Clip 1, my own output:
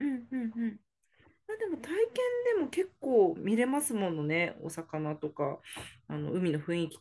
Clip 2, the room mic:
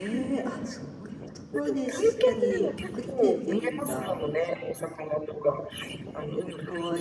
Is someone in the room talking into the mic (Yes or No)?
Yes